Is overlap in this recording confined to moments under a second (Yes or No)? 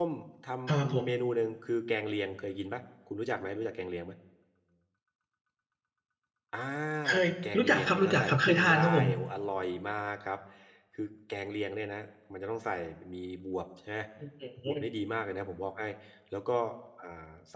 No